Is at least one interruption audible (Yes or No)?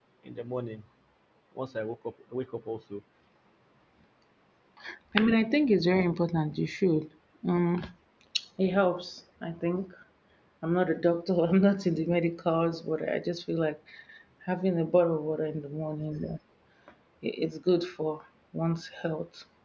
No